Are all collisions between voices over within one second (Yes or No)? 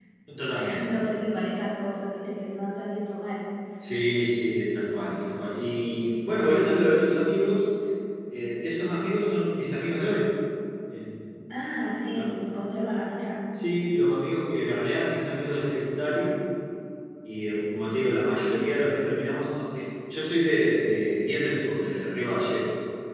Yes